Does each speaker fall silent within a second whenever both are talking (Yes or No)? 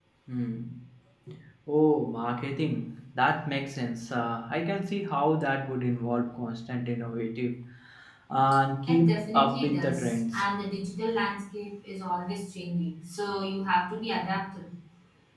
No